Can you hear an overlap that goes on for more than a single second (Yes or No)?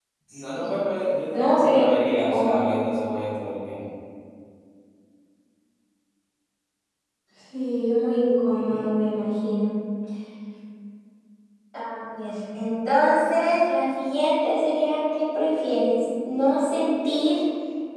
Yes